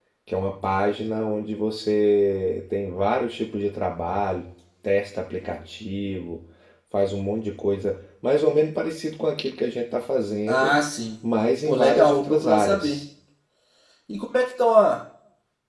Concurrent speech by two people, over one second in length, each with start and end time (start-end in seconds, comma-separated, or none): 11.7-13.0